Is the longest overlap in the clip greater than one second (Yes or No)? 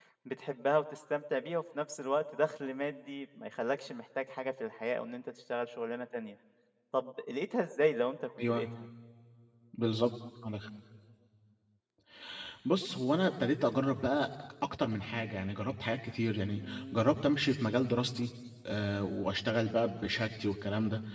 No